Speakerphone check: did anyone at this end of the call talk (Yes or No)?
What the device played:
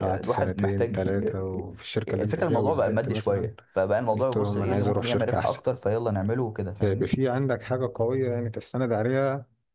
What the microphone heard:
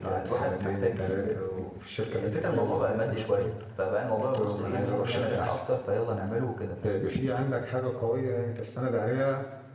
No